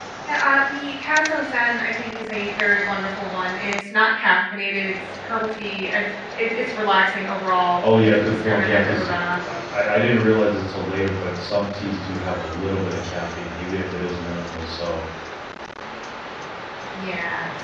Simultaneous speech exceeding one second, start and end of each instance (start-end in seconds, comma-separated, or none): 7.8-9.1